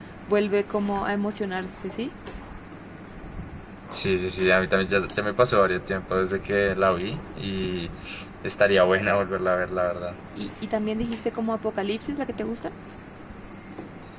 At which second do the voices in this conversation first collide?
none

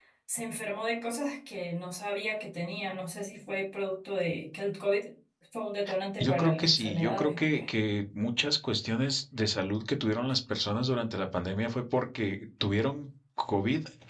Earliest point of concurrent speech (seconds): 6.2 s

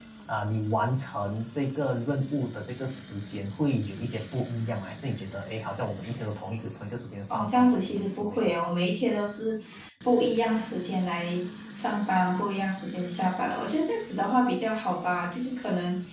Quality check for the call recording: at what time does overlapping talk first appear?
7.3 s

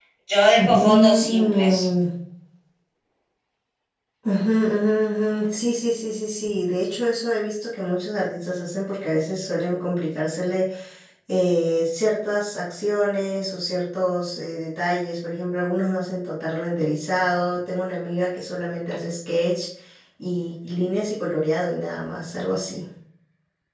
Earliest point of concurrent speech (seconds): 0.6 s

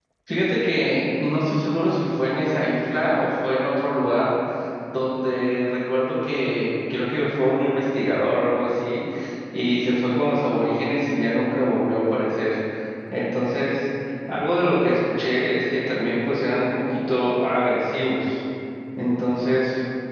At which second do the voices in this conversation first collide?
none

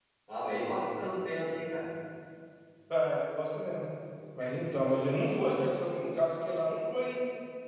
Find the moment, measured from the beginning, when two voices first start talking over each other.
none

